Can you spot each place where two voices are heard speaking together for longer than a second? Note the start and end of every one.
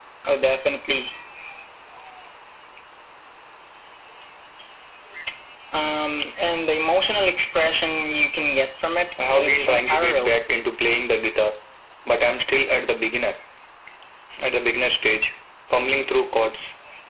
9.2-10.4

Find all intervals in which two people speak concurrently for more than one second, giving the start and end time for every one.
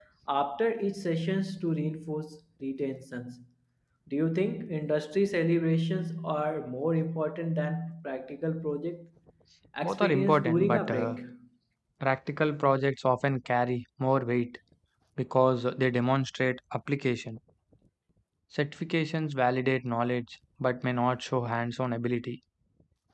9.8-11.2

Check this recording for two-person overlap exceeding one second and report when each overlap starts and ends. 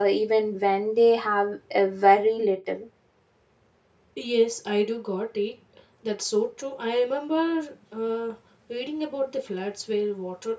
none

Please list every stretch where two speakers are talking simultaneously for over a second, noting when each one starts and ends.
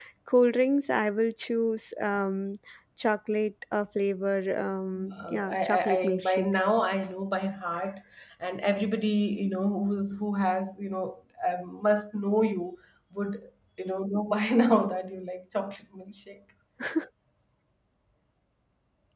5.1-6.5

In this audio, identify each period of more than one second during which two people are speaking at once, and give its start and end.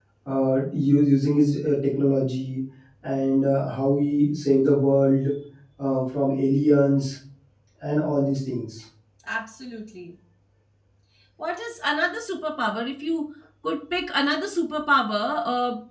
none

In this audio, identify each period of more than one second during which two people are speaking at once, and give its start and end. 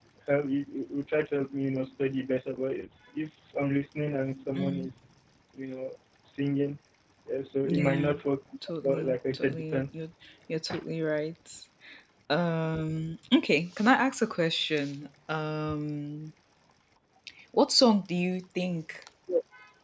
8.8-10.0

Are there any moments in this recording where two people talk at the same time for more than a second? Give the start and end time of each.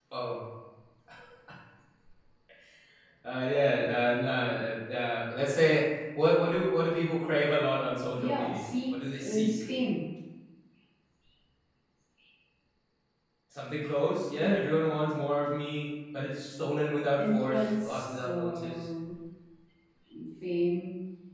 8.2-9.5, 17.2-18.7

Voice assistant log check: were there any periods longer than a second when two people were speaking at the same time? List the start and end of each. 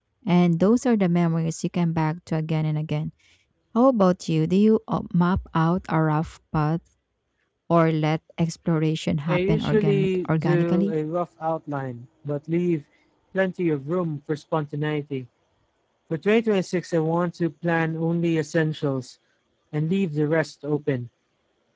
9.3-10.9

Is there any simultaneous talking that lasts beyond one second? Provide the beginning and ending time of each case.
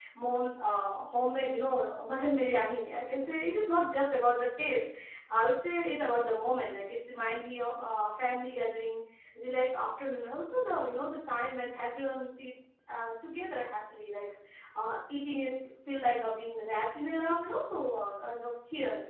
none

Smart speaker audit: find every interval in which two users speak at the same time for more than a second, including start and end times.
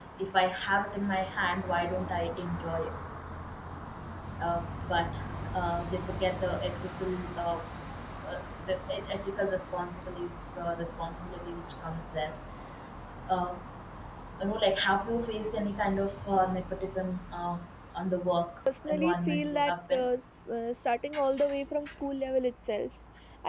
18.9-20.1

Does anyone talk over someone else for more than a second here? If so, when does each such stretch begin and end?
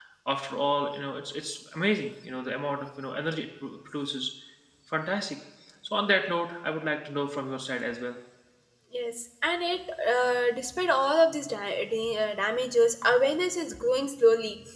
none

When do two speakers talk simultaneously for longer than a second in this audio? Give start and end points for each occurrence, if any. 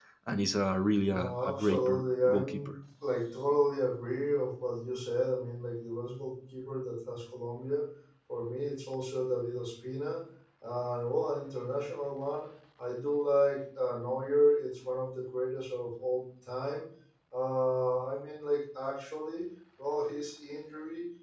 1.1-2.8

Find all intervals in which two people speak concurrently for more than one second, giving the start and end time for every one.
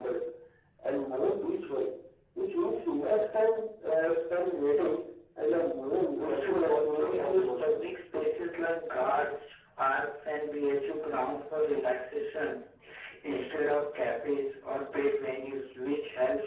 6.2-7.8

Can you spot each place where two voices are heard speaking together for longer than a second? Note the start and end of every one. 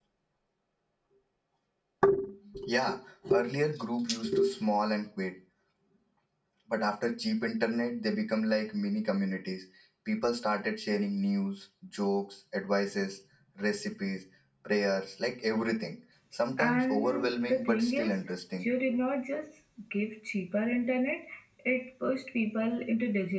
16.6-18.1

